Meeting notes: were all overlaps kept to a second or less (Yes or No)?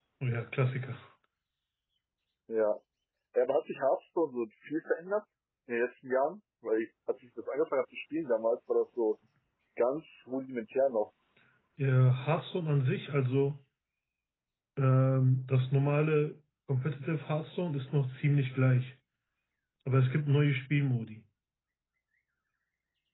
Yes